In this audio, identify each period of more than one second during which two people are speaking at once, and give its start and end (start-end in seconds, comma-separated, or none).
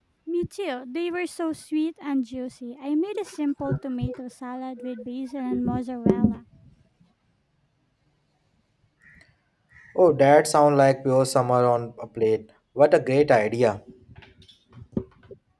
none